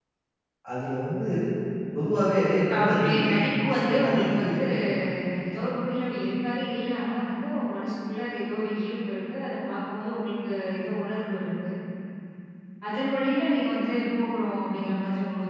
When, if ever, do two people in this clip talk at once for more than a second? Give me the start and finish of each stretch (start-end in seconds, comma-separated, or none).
2.7-4.6